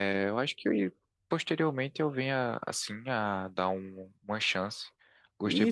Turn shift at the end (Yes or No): Yes